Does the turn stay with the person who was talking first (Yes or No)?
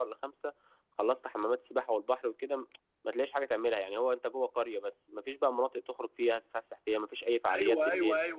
No